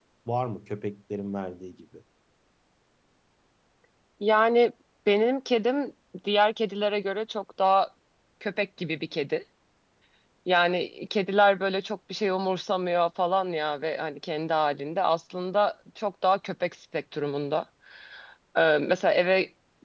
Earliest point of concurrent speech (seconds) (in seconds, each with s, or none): none